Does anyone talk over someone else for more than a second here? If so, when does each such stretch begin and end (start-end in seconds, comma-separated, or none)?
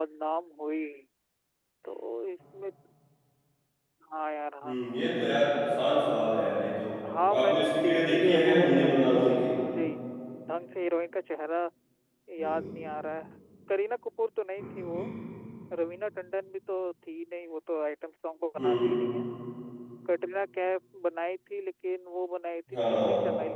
7.3-9.4